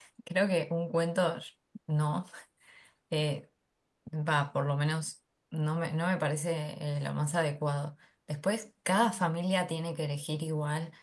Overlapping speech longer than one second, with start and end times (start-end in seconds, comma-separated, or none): none